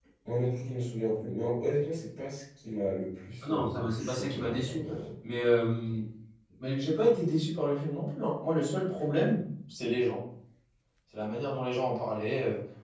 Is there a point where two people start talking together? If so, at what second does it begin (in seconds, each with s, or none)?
3.4 s